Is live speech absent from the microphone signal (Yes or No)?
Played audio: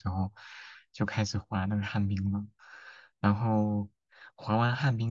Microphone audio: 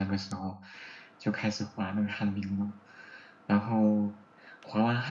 Yes